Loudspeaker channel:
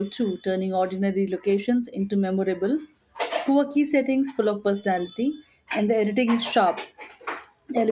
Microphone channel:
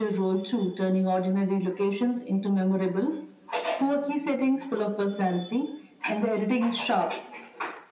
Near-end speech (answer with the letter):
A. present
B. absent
B